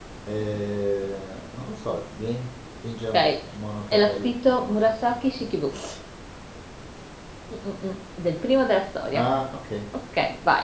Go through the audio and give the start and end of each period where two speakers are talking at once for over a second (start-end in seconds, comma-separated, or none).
3.9-5.5